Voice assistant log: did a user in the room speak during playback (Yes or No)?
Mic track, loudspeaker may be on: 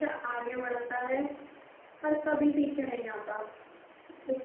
No